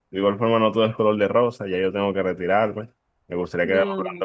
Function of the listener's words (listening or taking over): listening